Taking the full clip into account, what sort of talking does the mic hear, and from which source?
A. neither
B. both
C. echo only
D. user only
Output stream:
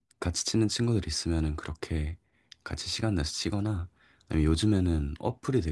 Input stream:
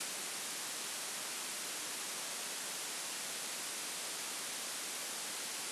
A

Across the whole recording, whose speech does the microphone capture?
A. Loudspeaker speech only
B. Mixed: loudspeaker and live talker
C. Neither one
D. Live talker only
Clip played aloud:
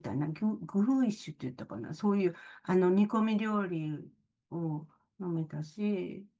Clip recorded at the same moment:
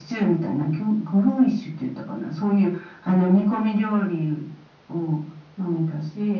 A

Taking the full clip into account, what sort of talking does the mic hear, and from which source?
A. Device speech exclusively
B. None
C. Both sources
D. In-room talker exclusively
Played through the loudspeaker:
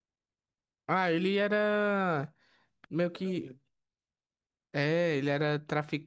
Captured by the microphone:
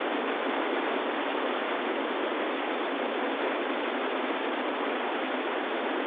B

